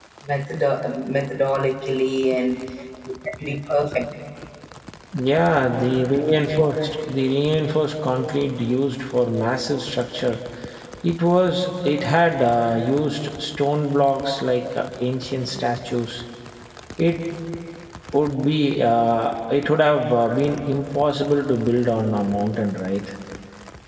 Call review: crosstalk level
none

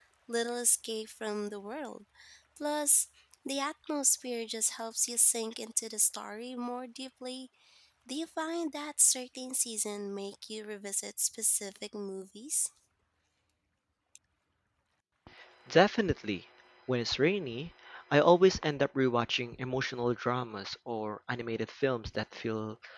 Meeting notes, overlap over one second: none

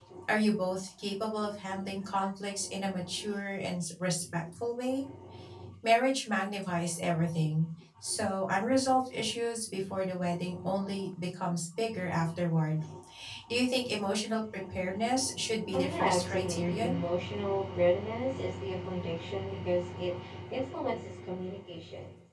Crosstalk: present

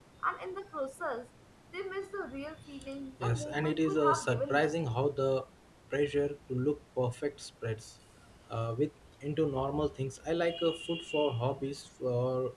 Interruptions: present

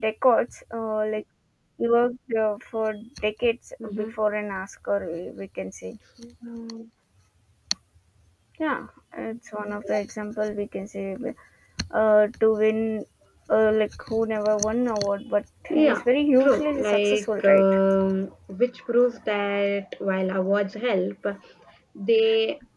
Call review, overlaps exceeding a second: present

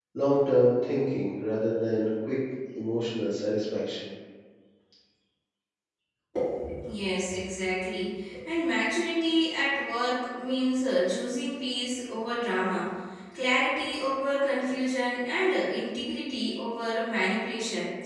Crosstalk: none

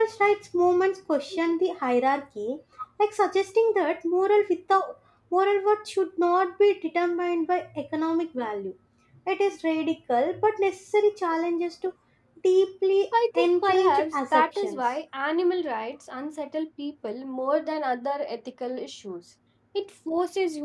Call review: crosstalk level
present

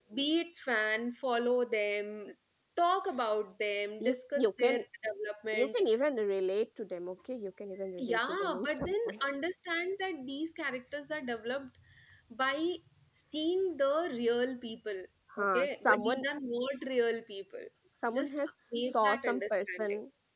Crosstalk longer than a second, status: present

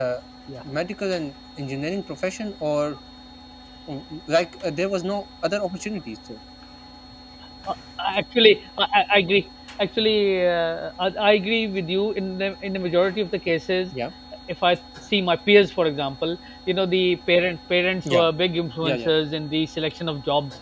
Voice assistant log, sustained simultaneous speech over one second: none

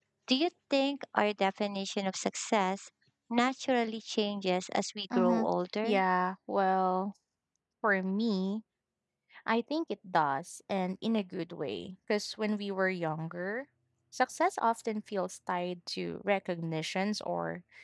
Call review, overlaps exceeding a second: none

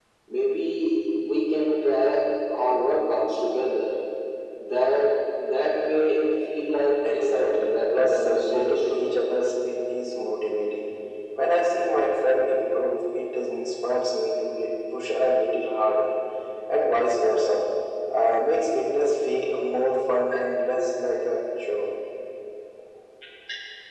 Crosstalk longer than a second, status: present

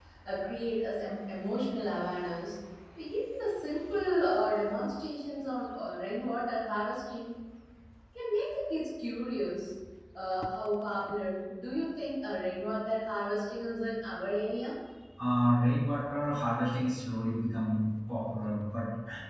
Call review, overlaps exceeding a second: none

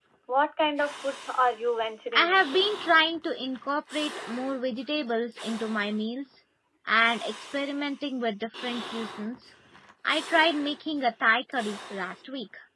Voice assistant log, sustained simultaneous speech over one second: none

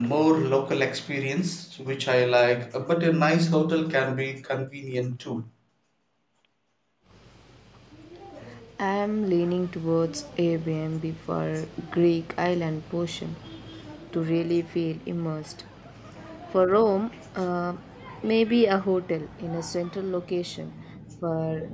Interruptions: none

